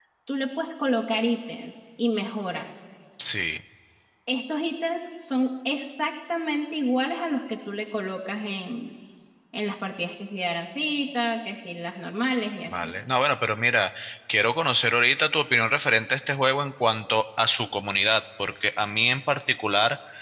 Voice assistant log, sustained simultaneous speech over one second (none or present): none